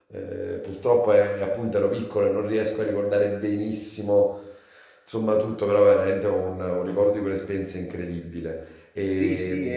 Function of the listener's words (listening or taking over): taking over